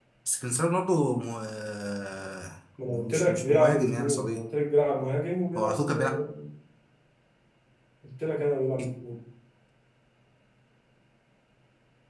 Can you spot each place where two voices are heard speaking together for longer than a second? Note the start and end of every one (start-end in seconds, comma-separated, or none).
2.8-4.4